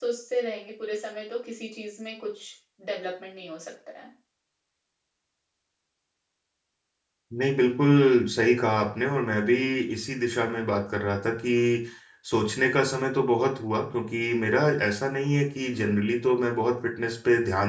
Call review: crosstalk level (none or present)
none